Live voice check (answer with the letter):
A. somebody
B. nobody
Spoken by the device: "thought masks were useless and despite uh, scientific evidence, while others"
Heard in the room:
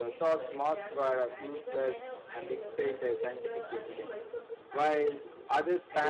A